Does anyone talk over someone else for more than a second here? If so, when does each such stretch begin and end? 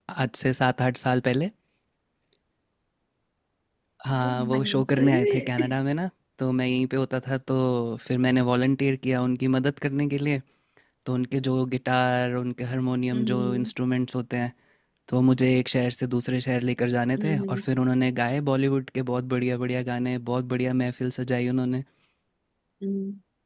4.2-5.7

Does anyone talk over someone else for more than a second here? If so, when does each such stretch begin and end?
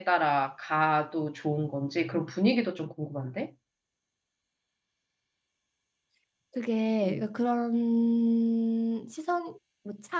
none

